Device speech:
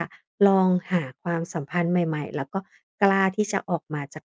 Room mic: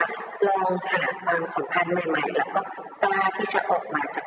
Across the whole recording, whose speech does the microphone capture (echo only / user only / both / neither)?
echo only